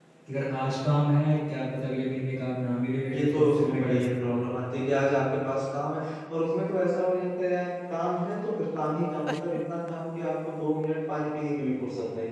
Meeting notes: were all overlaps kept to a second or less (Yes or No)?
No